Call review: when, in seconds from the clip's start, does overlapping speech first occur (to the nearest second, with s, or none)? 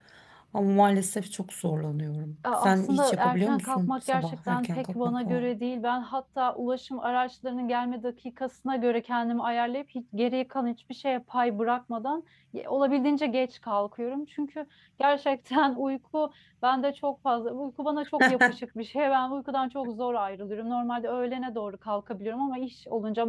3 s